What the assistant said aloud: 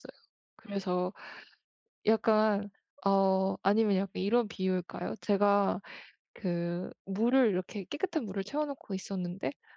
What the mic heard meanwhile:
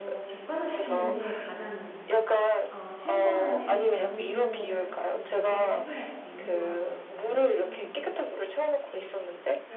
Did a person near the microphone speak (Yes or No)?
Yes